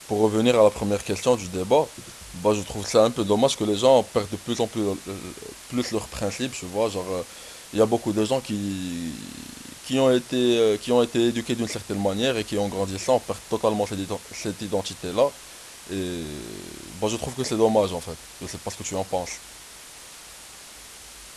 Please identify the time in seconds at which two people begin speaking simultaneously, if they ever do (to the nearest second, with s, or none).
none